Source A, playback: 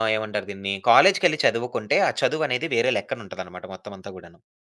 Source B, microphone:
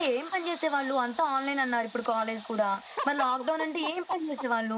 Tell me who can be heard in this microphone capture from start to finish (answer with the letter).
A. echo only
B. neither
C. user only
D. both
C